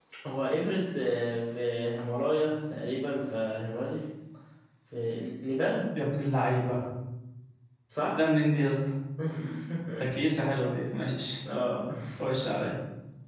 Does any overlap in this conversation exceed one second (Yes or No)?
No